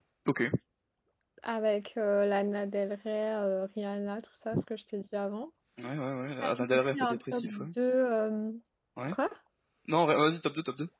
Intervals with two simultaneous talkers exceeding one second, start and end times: 6.4-7.7

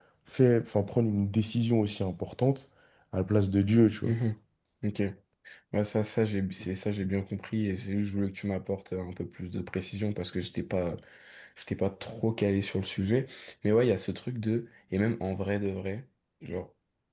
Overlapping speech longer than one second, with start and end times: none

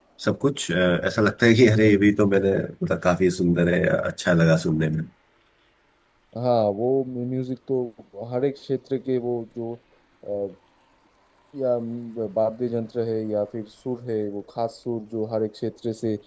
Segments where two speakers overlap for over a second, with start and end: none

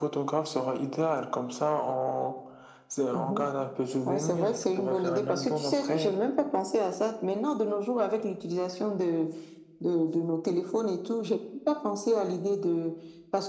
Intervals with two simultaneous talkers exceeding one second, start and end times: 4.0-6.2

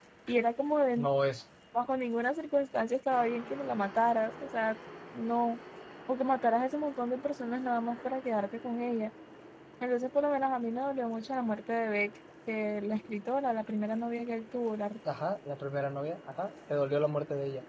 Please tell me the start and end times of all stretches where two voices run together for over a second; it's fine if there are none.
none

